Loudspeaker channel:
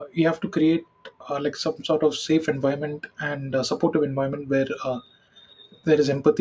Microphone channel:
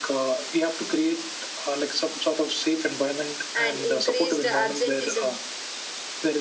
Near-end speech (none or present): present